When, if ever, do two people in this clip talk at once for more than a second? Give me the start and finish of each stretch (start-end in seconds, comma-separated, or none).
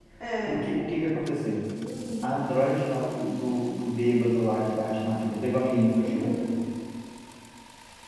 none